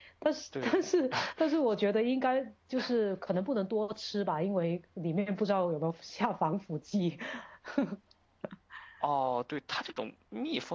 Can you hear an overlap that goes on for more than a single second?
No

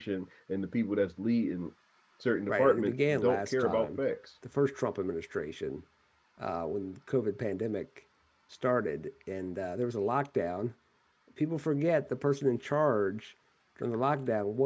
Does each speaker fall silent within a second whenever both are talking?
No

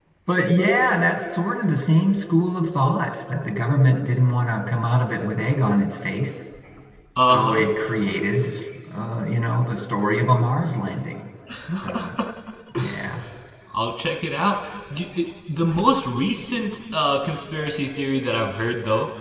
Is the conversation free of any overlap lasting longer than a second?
Yes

